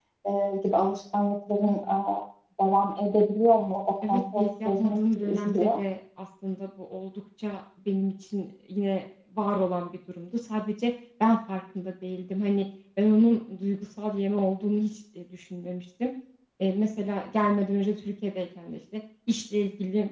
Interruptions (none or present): present